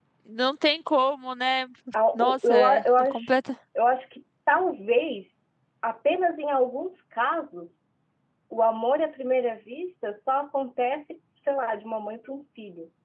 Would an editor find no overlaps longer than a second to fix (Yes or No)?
No